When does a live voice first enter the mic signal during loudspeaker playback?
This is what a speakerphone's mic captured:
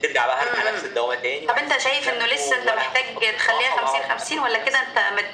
none

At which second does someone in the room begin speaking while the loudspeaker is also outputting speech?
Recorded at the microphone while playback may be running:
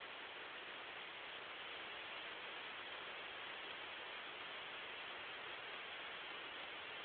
none

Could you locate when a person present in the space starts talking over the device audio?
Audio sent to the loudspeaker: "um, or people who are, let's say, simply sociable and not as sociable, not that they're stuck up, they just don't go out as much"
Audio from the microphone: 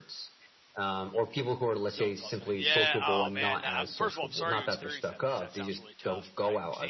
2 s

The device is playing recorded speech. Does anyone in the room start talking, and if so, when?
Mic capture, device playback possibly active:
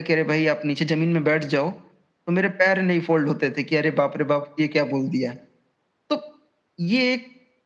none

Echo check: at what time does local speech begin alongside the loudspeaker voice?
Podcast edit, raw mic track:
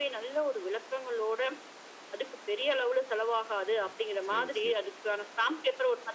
4 s

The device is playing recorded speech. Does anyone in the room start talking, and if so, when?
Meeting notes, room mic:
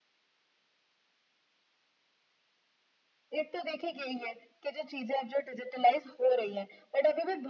none

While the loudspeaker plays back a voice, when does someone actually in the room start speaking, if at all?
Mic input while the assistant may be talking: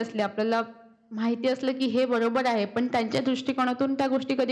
none

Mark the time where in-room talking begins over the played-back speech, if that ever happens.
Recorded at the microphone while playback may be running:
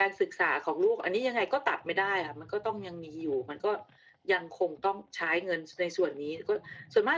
none

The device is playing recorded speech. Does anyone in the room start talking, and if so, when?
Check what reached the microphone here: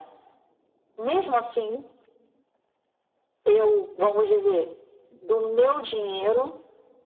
none

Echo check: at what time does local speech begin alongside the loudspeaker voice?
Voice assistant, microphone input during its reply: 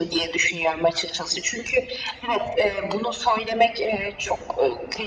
none

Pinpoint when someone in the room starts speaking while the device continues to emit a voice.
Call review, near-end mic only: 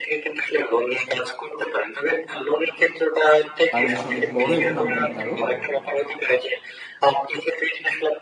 4 s

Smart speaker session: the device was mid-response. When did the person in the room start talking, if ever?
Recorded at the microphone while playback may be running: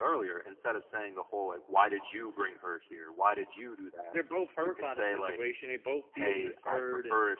4 s

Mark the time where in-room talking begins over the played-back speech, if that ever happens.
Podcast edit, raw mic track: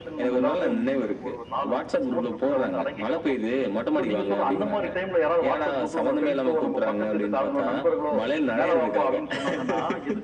none

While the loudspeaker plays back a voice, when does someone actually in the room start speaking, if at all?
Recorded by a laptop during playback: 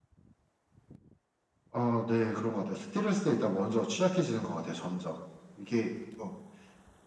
none

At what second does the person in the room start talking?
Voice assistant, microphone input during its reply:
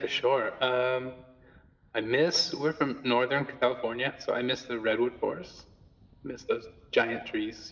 none

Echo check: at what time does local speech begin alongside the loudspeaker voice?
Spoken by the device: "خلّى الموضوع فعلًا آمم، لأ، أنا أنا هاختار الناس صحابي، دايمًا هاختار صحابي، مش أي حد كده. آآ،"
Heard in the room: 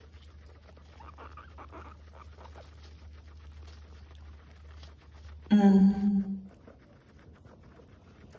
6 s

